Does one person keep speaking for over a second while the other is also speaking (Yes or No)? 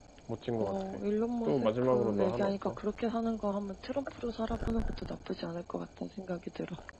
Yes